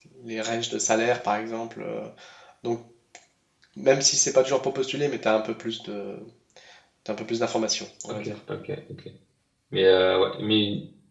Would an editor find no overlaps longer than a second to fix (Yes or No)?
Yes